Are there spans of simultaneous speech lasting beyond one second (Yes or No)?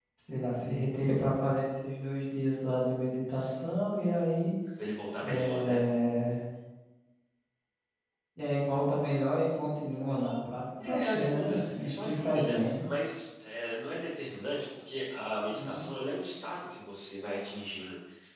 Yes